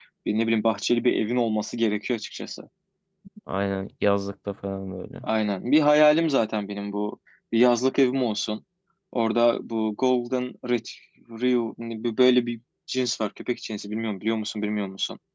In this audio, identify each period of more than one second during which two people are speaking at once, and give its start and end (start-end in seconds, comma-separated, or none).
none